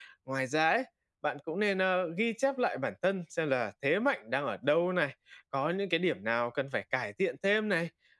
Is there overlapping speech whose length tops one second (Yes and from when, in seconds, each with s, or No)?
No